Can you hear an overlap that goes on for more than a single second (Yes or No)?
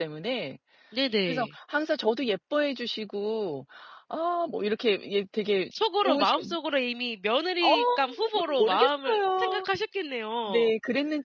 Yes